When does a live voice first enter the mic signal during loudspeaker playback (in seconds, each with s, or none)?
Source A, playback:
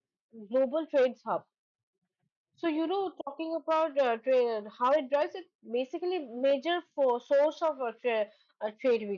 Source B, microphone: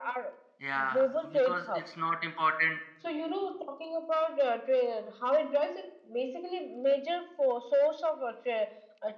0.6 s